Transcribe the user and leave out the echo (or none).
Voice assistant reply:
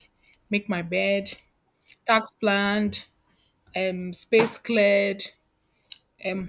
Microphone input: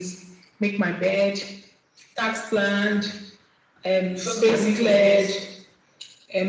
You first of all make your bed,